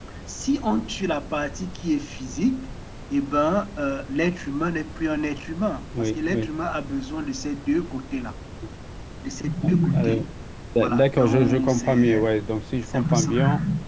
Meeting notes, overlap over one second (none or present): present